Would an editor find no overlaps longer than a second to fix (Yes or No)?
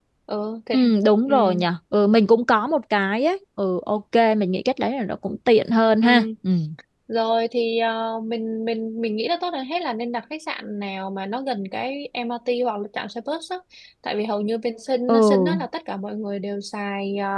Yes